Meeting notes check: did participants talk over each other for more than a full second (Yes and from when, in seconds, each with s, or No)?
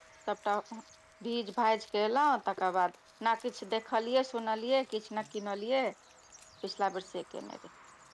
No